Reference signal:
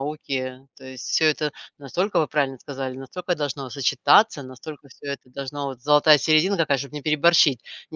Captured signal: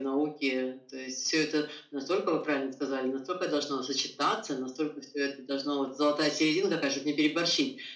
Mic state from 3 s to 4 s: echo only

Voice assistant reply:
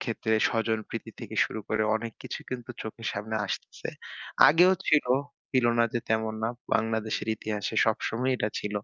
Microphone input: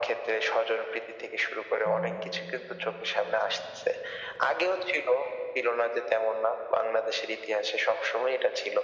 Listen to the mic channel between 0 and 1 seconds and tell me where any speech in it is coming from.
echo only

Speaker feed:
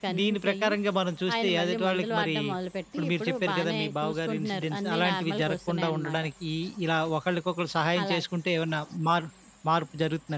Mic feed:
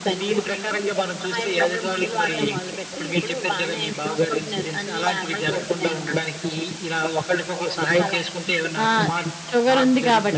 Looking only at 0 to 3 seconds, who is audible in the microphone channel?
echo only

